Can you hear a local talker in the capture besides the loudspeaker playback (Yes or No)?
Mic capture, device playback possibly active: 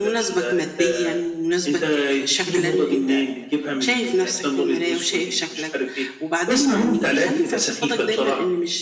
Yes